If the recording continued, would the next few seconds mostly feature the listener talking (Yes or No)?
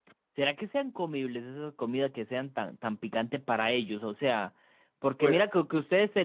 No